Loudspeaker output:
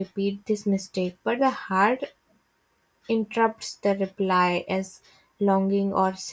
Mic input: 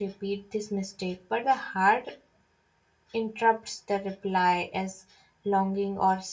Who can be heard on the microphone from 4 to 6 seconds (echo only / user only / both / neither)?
echo only